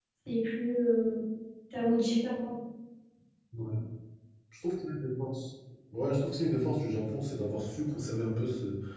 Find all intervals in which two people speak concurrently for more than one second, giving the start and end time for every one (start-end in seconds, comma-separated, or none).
none